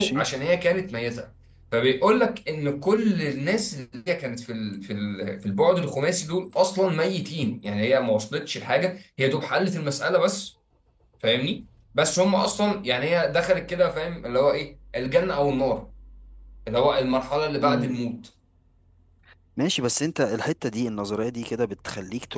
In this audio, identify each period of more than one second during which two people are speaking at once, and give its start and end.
none

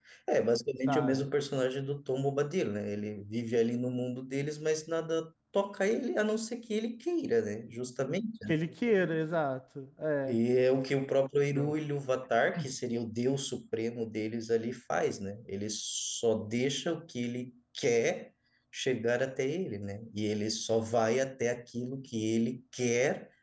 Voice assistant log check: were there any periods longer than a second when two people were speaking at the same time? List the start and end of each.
none

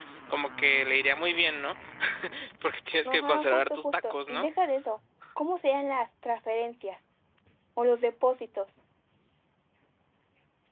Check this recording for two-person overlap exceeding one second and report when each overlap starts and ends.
3.0-4.5

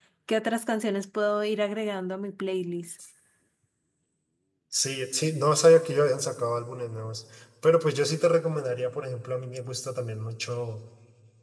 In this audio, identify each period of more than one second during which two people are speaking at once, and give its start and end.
none

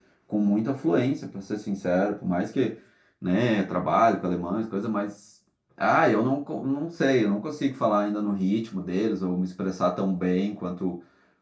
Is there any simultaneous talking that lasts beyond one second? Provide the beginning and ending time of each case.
none

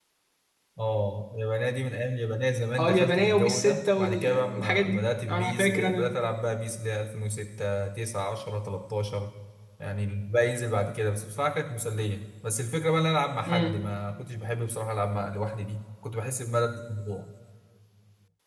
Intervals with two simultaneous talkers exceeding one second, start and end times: 2.8-6.2

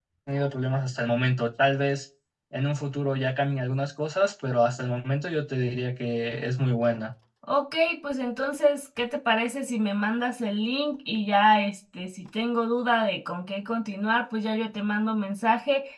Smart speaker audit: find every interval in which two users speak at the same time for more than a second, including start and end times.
none

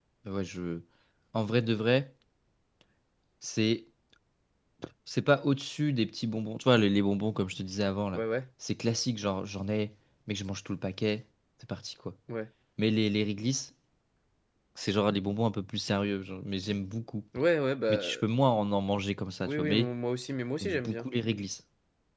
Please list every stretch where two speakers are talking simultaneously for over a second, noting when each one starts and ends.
none

